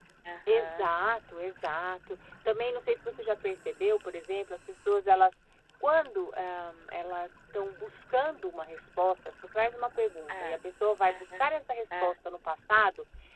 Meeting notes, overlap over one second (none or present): none